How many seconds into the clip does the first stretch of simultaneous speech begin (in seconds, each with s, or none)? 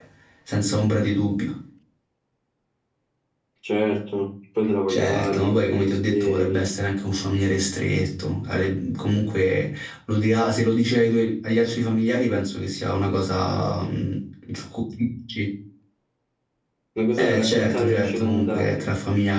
4.9 s